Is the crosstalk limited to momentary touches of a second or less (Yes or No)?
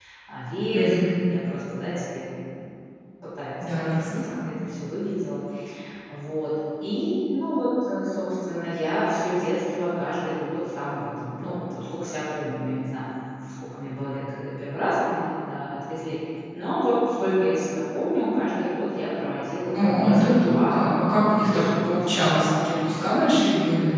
No